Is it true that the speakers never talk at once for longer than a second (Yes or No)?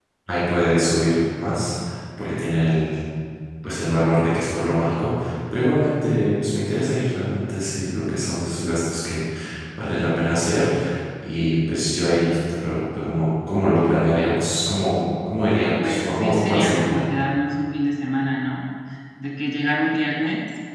No